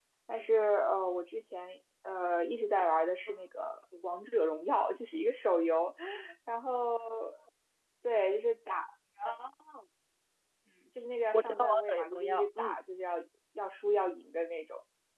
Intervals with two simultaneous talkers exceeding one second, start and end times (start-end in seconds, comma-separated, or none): 11.3-12.8